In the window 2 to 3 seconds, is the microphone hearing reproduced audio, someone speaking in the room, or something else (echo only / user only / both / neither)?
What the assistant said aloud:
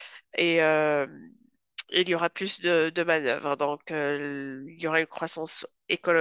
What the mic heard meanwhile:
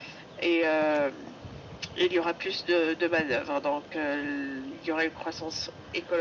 echo only